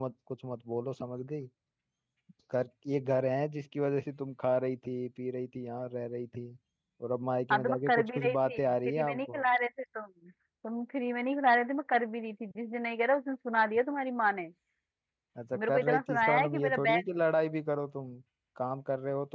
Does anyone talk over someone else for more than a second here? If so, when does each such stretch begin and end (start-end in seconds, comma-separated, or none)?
7.5-9.4, 15.5-17.0